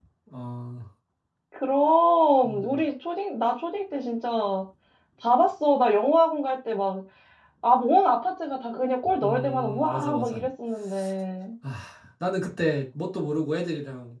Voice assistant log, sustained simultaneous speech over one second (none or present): present